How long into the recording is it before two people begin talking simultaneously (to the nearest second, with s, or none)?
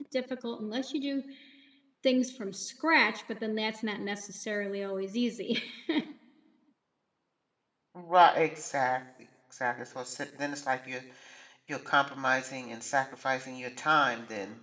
none